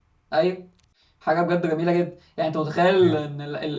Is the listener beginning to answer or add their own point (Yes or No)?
No